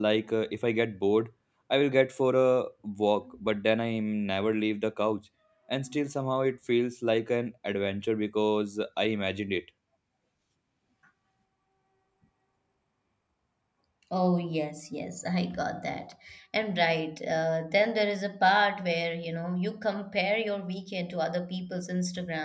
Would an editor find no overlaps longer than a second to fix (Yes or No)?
Yes